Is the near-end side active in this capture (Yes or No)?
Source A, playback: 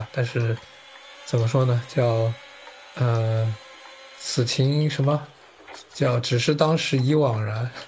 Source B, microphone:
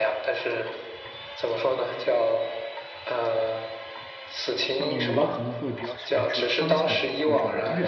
Yes